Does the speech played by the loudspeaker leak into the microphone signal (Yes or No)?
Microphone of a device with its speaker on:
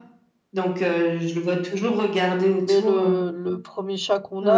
Yes